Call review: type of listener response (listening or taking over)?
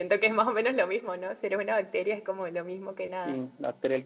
taking over